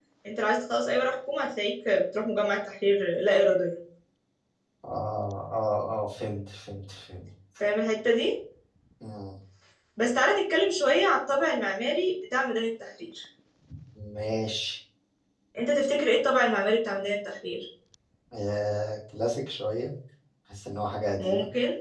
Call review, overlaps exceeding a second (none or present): none